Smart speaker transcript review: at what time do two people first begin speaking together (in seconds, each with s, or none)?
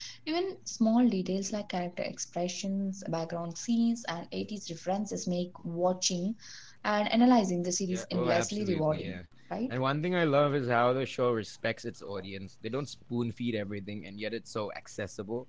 7.9 s